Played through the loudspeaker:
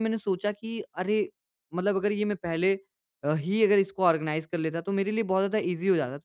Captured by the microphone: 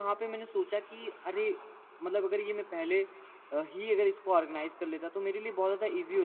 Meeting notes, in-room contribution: none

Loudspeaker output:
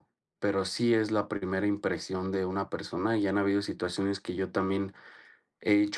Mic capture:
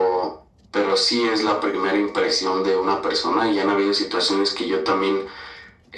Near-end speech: none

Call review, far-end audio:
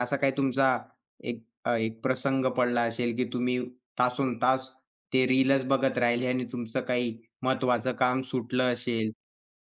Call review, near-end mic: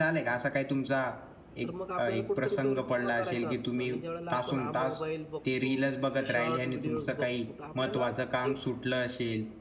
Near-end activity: present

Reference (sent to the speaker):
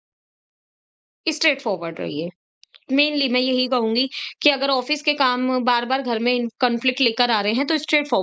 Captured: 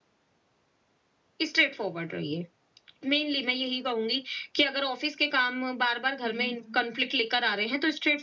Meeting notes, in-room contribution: present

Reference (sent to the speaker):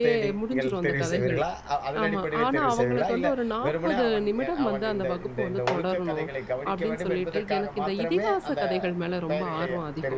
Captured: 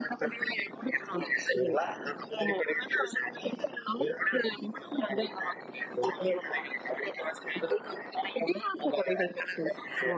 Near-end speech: none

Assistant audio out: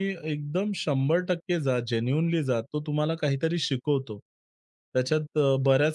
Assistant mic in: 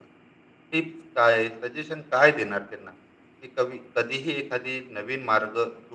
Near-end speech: present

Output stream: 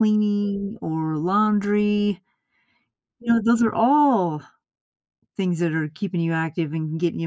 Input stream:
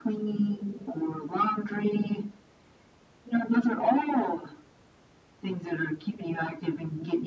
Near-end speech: none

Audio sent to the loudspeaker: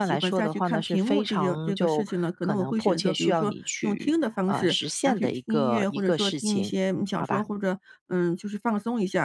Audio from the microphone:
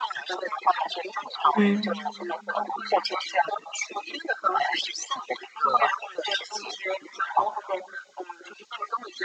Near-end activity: present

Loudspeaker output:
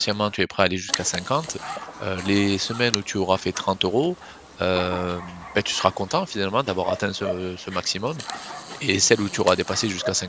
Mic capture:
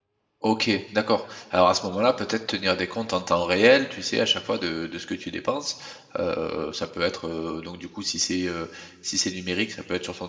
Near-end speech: present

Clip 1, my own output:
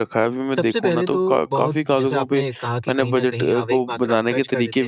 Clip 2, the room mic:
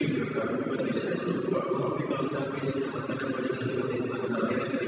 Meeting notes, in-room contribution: none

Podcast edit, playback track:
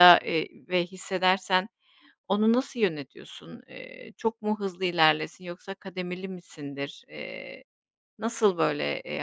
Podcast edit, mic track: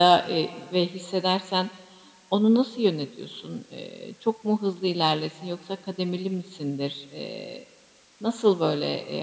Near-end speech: none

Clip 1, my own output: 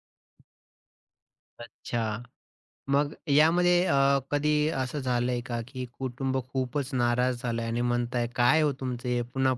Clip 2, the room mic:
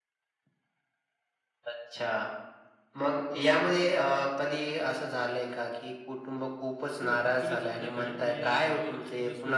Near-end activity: present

